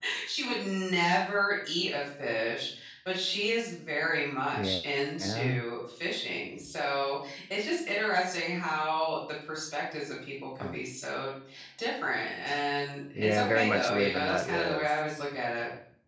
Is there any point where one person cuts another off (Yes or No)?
Yes